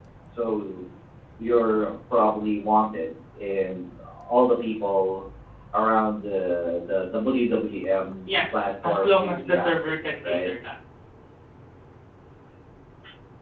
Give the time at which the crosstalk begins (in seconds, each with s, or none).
8.3 s